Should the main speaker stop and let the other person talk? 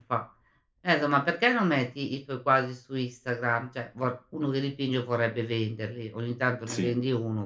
No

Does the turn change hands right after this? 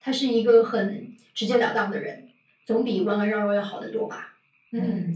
Yes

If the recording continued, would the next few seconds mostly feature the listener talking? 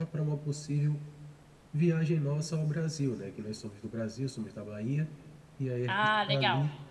No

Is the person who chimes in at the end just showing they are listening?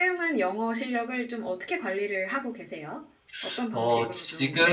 No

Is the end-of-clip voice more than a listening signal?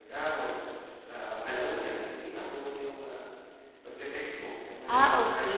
Yes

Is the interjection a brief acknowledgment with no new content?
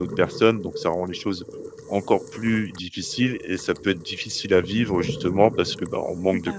Yes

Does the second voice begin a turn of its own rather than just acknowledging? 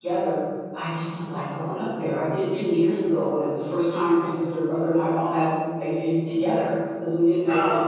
No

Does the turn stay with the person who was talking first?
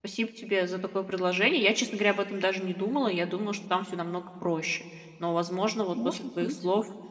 Yes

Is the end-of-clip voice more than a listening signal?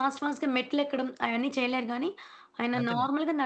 No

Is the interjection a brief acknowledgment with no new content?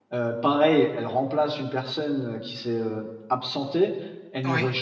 Yes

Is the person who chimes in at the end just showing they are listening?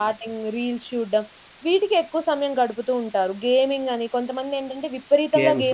Yes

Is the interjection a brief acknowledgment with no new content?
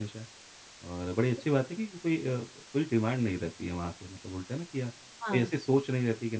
Yes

